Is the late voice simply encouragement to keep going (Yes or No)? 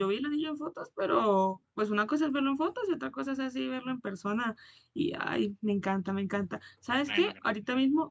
Yes